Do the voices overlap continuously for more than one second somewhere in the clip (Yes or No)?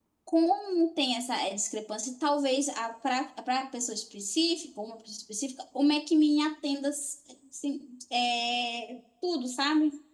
No